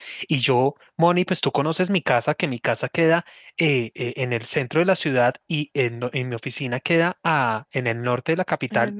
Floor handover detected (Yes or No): No